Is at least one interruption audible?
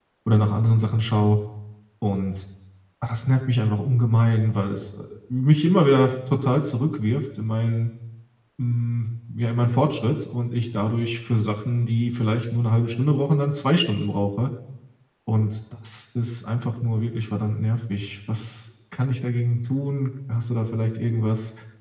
No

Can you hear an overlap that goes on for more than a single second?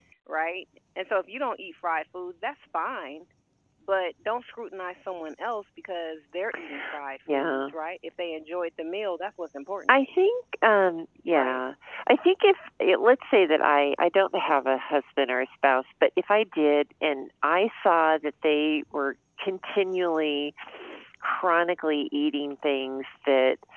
No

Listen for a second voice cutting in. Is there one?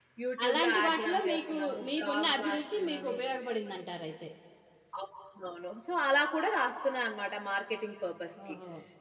Yes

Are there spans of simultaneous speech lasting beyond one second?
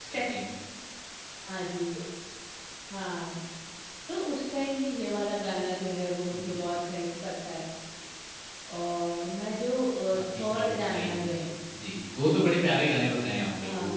Yes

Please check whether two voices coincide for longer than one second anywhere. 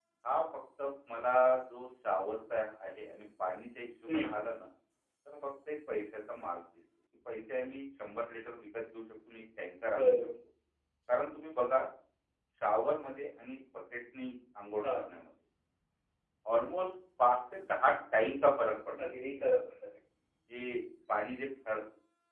No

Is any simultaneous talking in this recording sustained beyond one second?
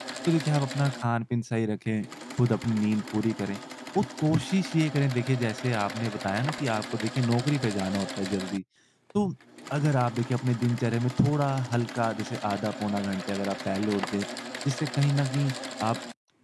No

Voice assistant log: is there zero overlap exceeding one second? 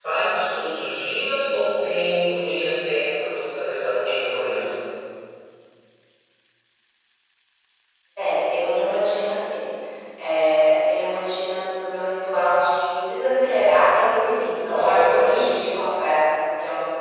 No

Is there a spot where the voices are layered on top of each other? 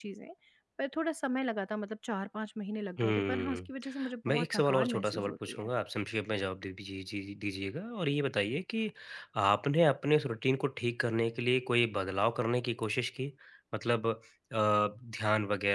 Yes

